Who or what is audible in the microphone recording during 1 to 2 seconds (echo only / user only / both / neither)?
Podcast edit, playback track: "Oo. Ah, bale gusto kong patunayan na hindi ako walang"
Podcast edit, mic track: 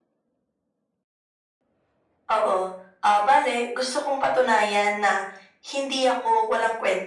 neither